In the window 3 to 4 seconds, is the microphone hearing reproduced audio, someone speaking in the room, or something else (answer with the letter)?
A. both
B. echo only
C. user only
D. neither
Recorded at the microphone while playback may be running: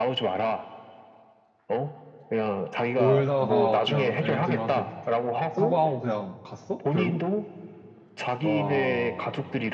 A